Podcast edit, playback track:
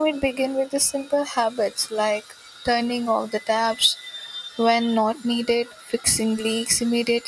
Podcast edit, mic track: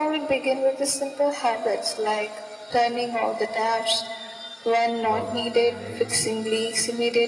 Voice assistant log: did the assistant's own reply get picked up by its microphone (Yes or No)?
Yes